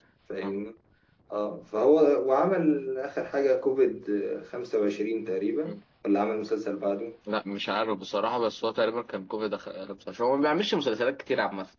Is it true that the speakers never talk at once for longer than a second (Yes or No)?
Yes